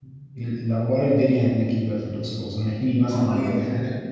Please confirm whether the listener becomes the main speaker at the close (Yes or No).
No